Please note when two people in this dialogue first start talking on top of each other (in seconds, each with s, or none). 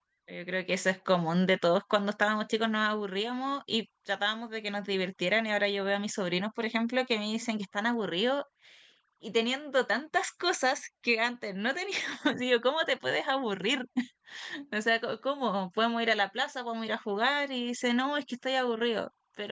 none